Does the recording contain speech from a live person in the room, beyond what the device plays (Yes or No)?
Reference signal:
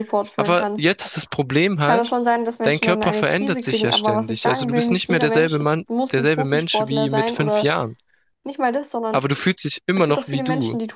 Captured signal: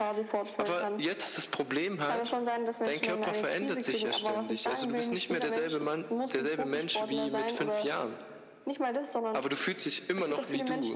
No